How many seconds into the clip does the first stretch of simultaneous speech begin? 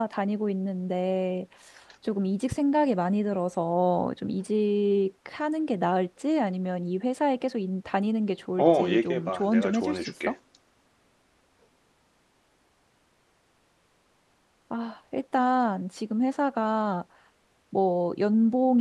9 s

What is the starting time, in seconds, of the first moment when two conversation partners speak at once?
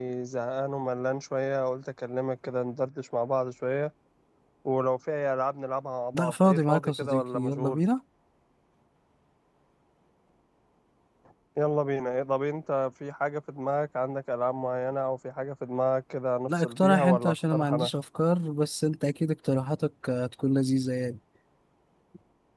6 s

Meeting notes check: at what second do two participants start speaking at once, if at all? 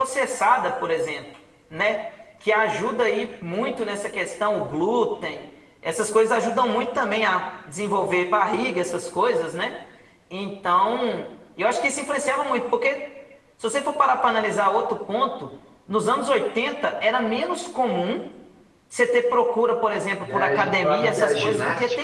20 s

